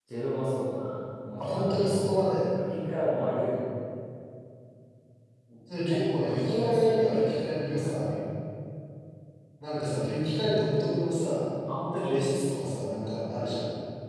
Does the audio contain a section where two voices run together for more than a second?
Yes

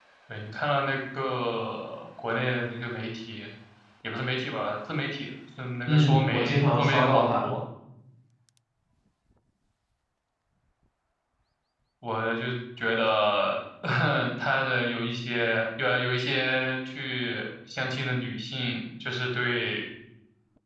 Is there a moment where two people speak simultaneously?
Yes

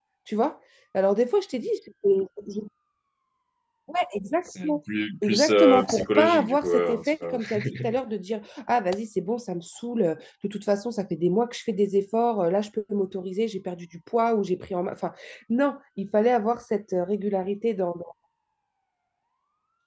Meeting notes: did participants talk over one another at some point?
Yes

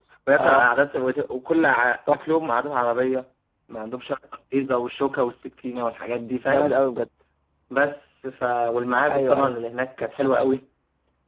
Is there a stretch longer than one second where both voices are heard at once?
No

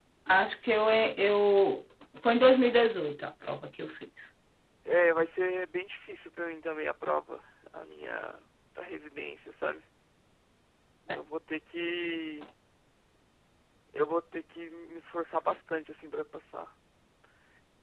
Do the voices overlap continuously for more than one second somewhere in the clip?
No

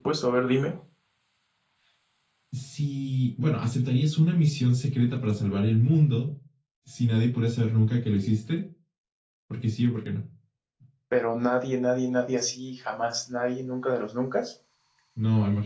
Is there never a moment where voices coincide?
Yes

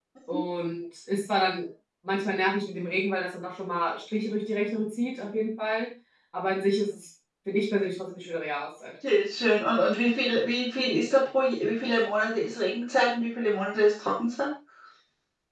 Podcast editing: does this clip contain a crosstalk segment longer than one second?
No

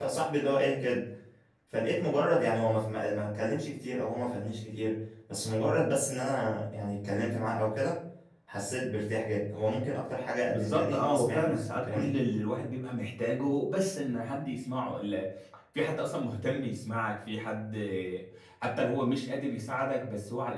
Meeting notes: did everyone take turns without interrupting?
No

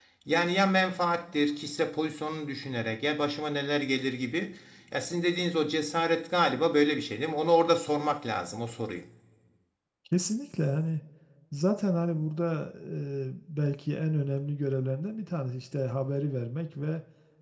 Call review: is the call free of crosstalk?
Yes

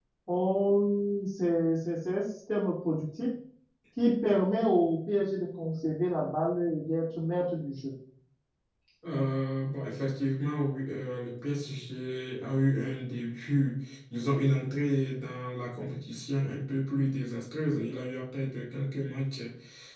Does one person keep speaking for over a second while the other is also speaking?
No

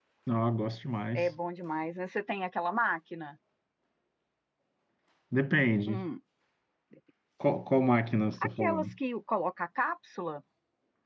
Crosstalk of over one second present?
No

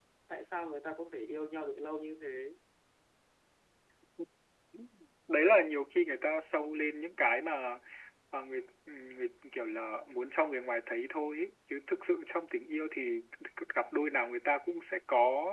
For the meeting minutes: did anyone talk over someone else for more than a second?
No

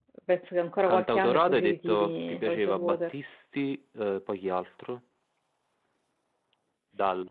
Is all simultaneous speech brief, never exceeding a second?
No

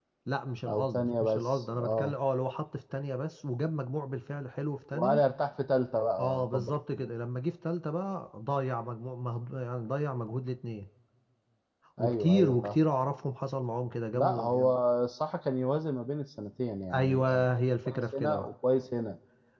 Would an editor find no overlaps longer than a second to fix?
No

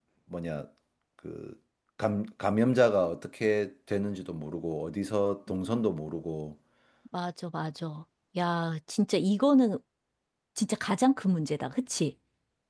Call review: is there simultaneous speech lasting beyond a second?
No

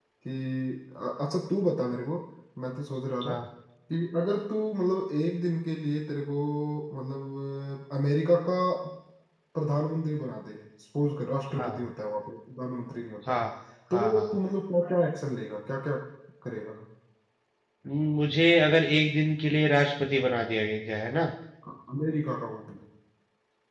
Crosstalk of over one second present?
No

